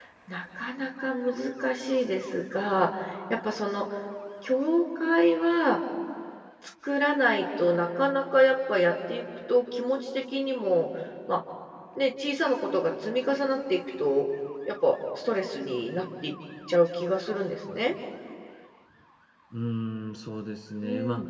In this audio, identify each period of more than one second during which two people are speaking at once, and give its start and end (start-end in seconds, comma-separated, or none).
none